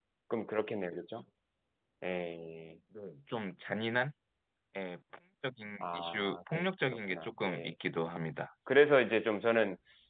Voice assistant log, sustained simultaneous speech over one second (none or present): present